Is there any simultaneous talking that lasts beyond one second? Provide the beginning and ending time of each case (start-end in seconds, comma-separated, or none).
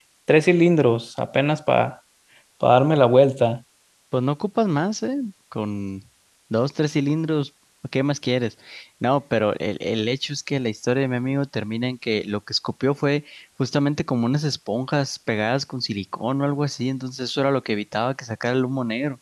none